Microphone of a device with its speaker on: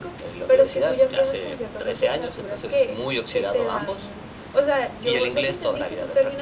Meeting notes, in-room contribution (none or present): none